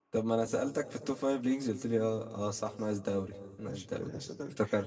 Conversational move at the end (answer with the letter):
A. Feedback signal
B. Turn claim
B